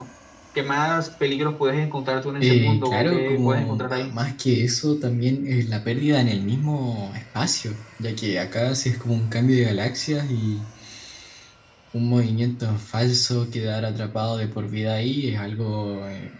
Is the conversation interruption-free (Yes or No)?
No